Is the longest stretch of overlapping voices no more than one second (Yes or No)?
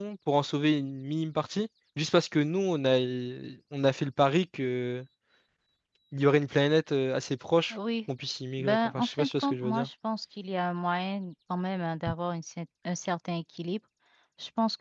No